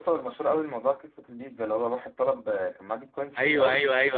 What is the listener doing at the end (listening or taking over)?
taking over